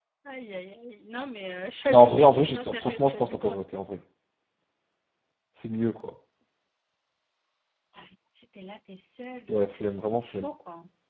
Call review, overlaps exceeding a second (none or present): present